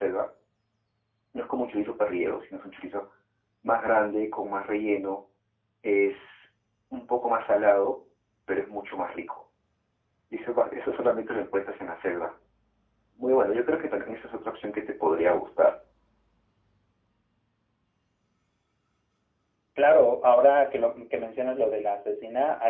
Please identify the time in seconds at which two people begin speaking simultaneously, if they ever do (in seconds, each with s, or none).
none